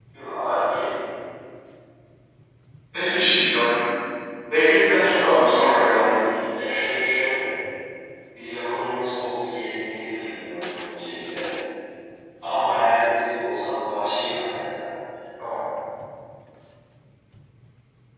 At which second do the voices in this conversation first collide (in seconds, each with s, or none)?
4.9 s